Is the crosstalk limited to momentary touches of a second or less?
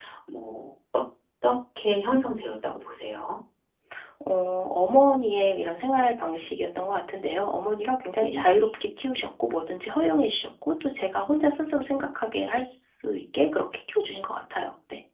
Yes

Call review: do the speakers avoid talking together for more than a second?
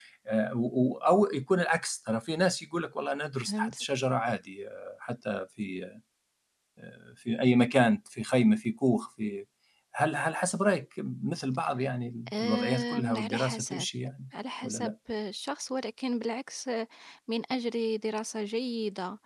No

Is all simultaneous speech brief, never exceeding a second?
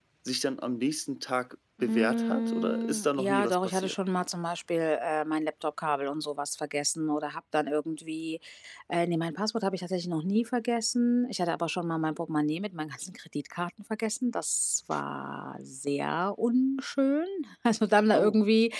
No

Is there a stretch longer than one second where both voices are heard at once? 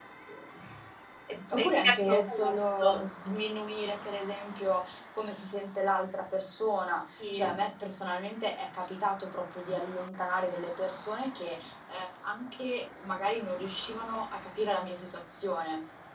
Yes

